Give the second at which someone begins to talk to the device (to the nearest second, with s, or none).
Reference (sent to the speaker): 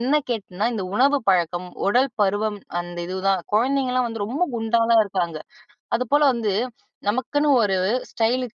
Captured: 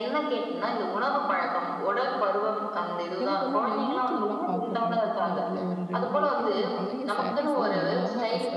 3 s